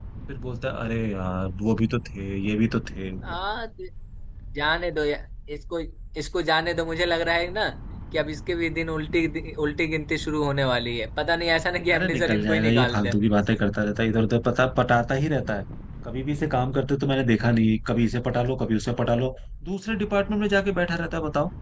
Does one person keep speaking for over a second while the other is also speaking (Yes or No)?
Yes